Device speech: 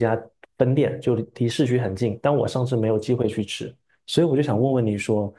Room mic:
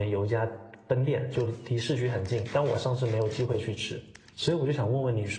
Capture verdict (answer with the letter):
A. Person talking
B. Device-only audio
B